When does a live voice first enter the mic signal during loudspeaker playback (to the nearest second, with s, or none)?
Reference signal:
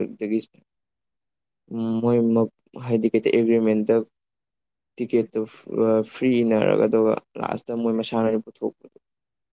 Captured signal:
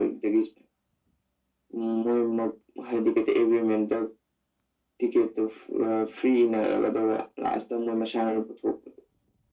none